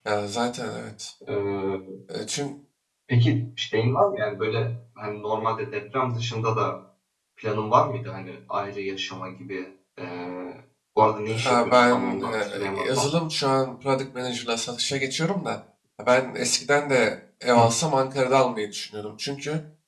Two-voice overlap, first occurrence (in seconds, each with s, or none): 11.4 s